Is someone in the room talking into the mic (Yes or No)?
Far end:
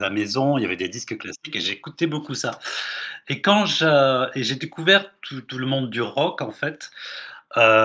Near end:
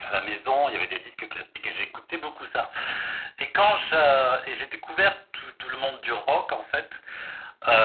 No